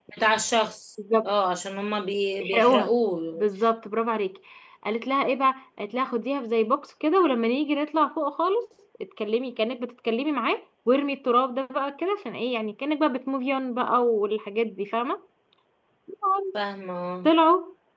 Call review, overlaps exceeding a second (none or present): none